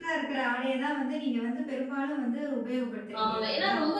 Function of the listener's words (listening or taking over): taking over